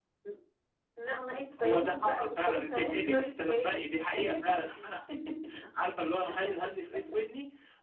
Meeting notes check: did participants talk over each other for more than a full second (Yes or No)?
Yes